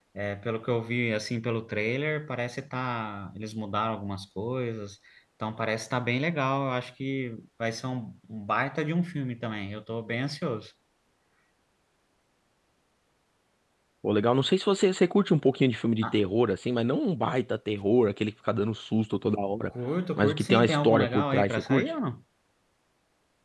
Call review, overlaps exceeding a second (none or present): present